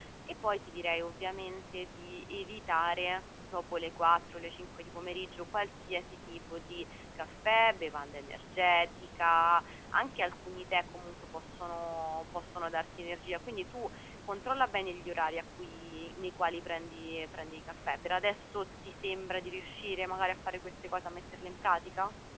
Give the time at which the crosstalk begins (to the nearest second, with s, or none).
none